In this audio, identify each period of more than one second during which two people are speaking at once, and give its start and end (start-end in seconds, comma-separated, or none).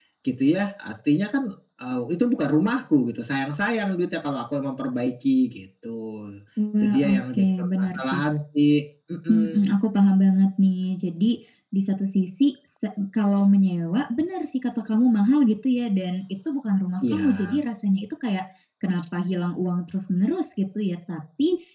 6.8-8.2